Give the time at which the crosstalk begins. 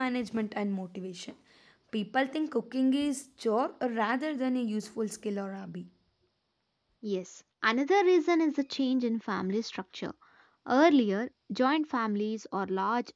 none

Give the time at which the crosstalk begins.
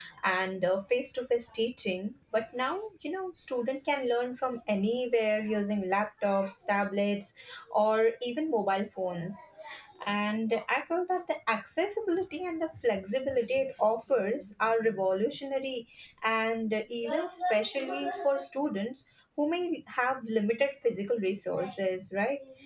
none

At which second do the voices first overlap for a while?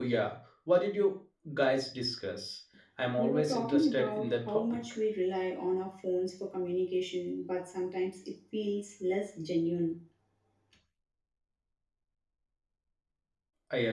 3.2 s

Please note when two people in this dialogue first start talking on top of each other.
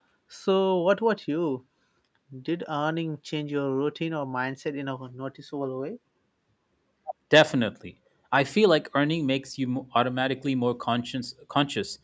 none

